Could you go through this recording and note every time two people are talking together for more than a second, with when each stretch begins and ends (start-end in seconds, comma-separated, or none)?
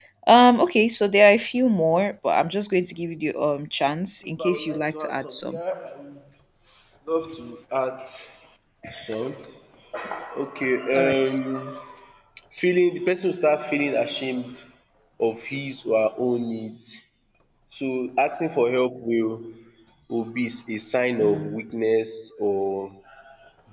4.4-5.6